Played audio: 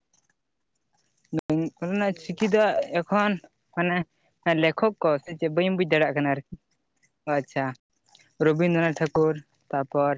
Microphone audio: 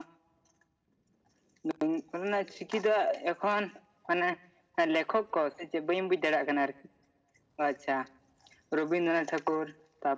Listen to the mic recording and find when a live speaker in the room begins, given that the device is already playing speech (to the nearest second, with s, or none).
none